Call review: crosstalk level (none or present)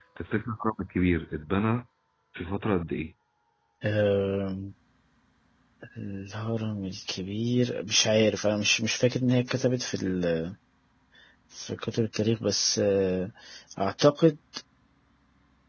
none